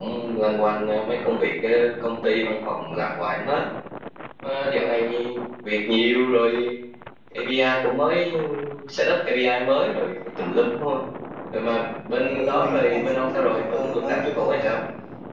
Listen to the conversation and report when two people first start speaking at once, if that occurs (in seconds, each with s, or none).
12.2 s